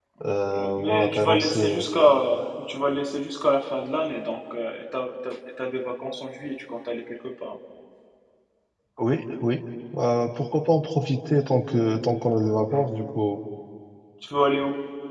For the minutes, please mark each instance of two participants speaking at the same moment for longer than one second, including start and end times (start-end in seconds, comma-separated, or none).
0.6-1.8